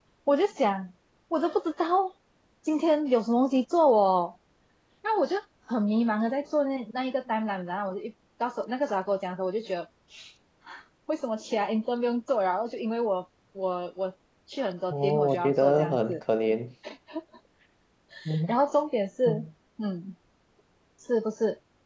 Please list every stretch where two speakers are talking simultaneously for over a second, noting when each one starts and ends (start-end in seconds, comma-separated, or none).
14.9-16.2